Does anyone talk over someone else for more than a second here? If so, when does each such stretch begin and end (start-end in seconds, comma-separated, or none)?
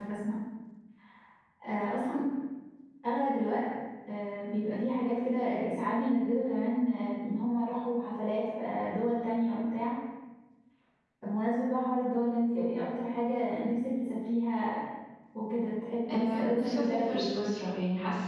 16.1-17.3